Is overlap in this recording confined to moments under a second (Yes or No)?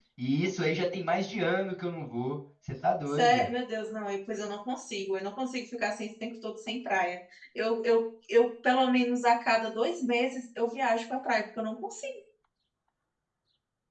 Yes